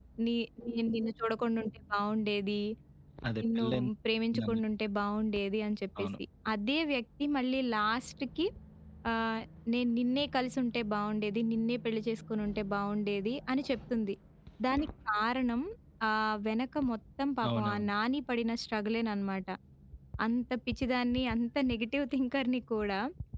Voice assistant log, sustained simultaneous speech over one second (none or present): none